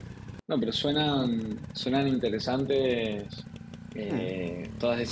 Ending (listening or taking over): listening